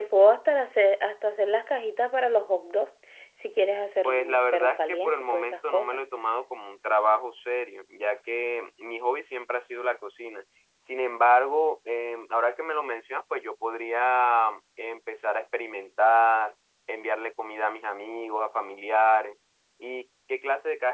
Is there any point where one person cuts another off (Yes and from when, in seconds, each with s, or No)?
Yes, from 4.0 s